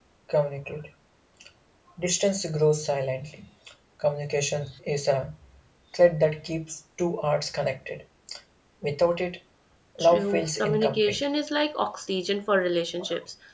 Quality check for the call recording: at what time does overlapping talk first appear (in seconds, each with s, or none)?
10.0 s